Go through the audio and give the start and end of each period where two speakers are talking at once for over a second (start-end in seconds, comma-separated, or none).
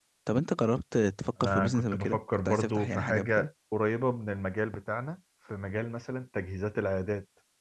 1.4-3.5